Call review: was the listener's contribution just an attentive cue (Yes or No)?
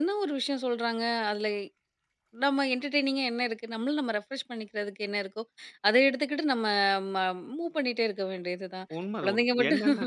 No